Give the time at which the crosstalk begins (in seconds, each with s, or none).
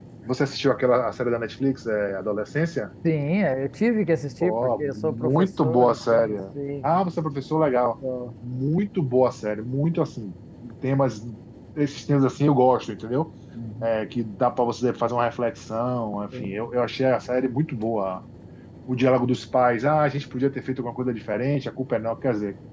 4.4 s